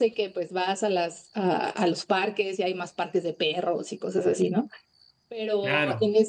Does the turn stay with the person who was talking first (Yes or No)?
Yes